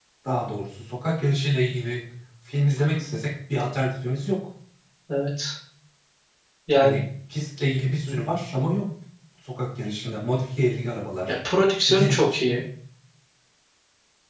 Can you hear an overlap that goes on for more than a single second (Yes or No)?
No